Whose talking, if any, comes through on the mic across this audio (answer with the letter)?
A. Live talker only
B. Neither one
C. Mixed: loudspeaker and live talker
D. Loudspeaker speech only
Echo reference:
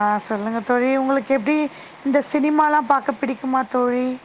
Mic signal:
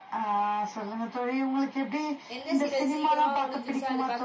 C